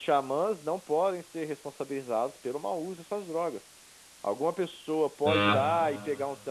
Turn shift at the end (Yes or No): No